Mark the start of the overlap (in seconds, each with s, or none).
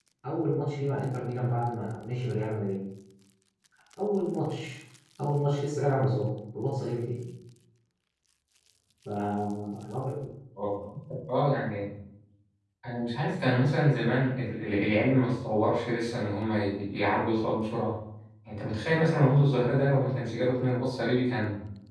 none